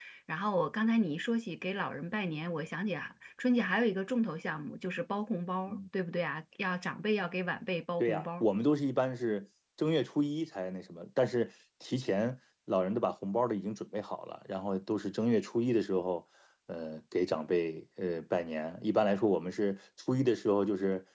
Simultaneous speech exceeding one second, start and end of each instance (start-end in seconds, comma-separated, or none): none